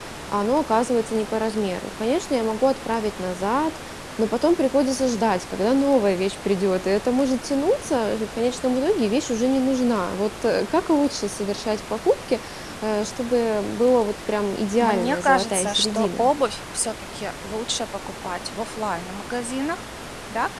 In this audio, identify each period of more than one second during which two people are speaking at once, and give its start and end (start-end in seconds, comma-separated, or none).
14.8-16.3